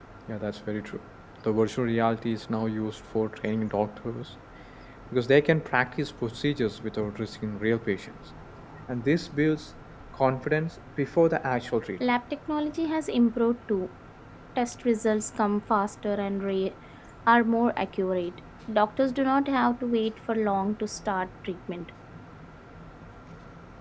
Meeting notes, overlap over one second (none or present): none